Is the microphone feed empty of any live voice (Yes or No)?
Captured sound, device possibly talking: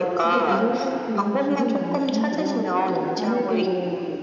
No